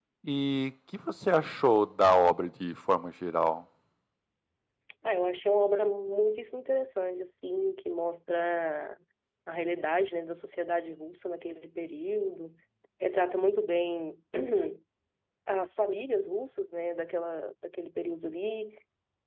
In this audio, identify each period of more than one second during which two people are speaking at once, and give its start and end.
none

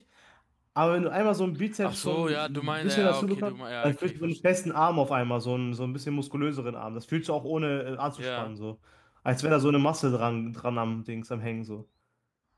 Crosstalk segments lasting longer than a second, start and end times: 1.8-4.5

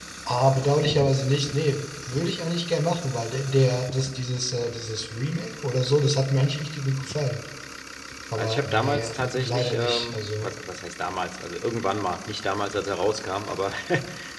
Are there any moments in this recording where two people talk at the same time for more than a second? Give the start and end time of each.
8.3-10.5

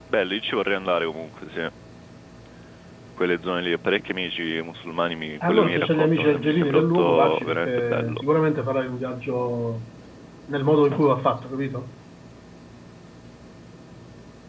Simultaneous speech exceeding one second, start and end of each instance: 5.4-8.2

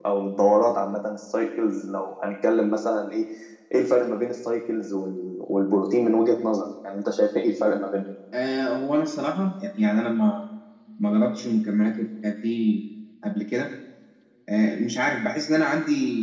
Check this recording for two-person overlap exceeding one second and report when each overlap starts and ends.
none

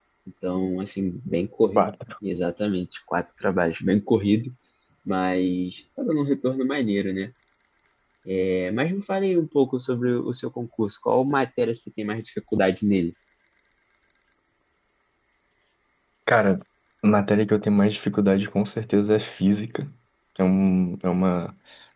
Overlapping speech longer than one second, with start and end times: none

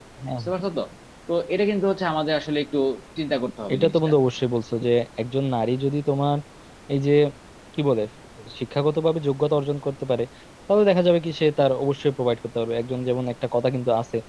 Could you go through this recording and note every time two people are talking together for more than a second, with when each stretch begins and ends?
none

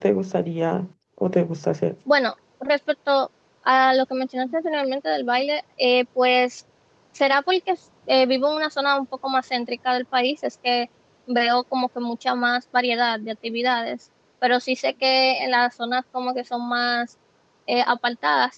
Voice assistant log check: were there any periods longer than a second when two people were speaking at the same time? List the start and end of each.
none

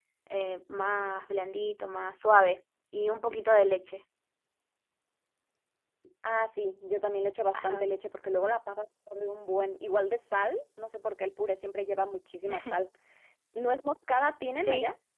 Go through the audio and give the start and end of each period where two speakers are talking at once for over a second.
none

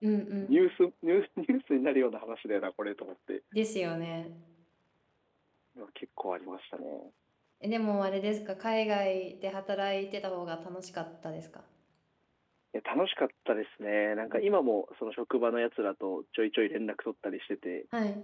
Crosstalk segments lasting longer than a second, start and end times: none

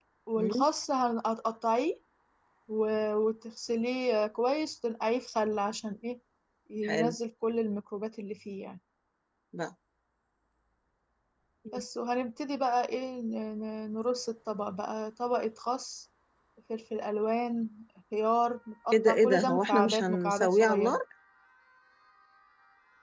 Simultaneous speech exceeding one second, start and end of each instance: 18.9-21.0

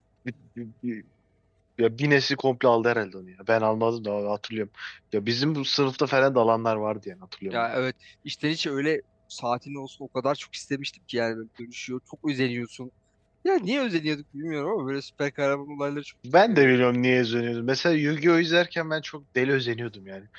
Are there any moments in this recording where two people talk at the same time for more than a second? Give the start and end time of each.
none

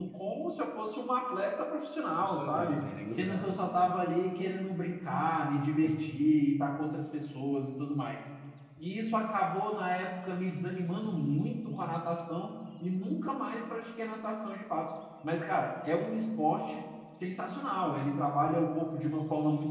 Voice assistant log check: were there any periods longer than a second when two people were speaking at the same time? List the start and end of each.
2.2-3.5

